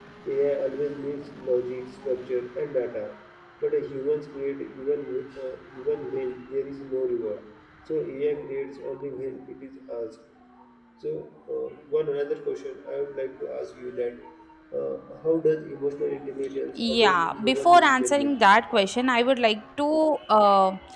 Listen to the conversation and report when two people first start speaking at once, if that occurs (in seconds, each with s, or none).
16.8 s